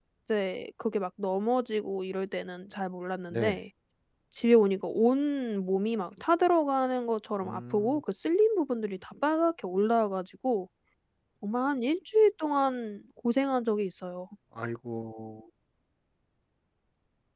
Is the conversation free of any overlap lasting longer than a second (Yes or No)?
Yes